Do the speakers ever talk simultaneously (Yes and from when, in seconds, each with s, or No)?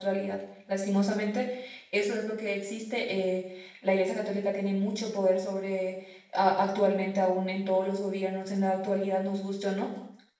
No